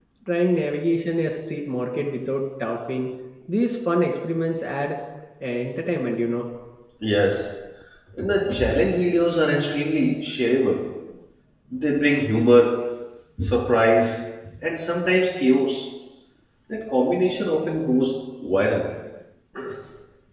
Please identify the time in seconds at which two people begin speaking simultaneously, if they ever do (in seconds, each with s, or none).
none